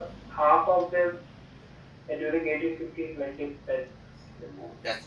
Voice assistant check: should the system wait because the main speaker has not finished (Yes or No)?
Yes